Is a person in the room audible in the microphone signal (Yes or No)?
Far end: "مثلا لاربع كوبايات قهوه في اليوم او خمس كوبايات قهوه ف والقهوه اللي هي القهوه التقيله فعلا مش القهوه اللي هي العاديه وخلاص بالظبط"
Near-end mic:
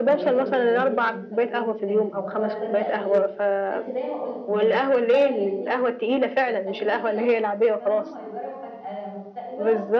Yes